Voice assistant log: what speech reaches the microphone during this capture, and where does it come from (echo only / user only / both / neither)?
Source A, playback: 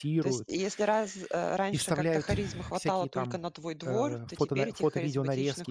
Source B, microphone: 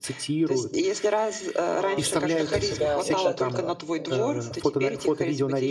both